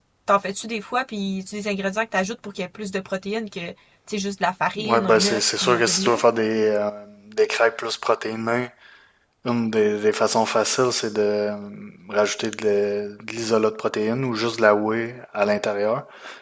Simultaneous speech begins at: 4.8 s

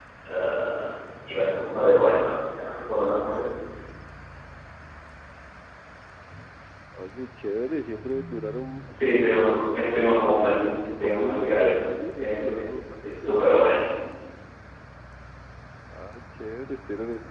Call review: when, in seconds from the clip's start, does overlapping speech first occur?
8.9 s

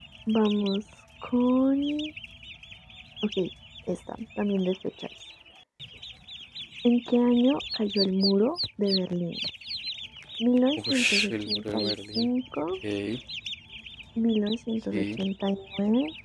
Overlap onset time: 10.8 s

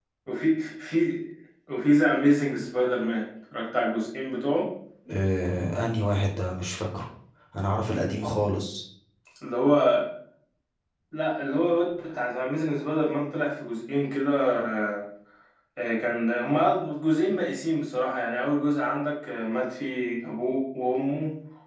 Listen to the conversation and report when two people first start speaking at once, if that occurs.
none

